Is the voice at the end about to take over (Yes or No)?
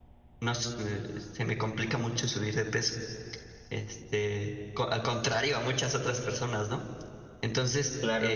Yes